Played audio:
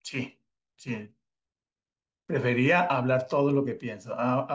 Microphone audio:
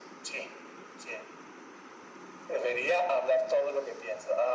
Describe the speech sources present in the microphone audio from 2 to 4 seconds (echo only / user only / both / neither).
echo only